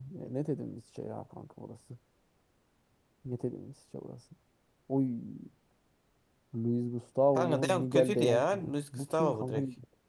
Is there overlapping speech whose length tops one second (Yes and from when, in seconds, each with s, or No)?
Yes, from 7.4 s